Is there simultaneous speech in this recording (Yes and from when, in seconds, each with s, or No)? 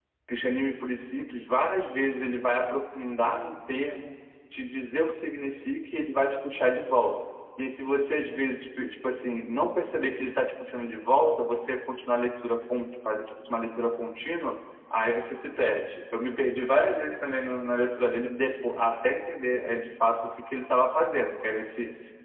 No